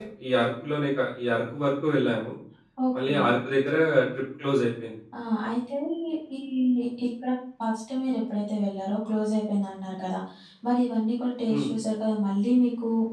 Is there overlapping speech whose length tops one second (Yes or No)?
No